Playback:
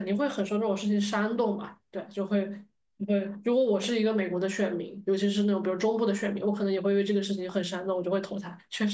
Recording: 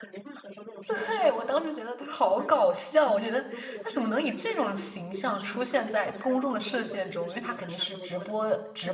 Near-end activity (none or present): present